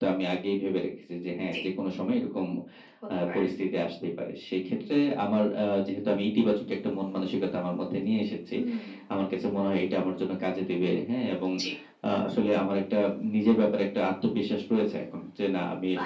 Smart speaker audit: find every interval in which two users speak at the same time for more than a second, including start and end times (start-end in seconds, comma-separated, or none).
none